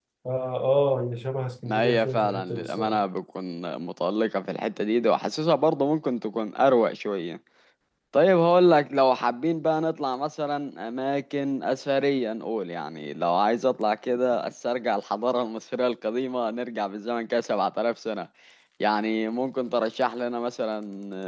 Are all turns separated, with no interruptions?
No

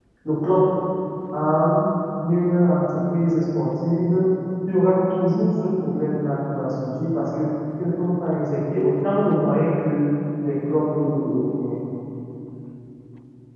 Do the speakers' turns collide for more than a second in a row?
No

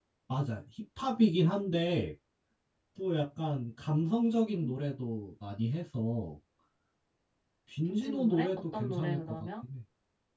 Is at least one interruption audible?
Yes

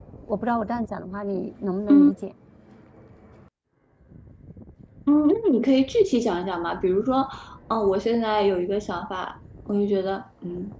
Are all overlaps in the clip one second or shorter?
Yes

